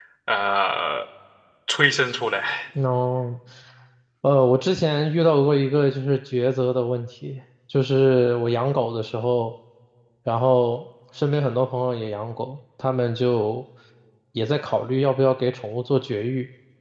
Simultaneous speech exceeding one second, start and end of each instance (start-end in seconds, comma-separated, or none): none